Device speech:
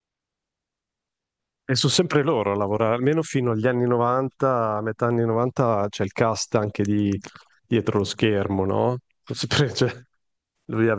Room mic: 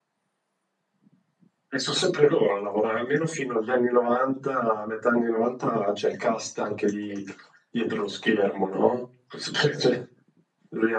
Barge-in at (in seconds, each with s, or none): none